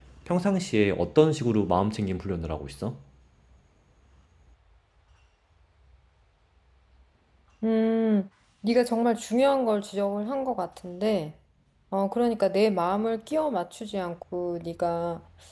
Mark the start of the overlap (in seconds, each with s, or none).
none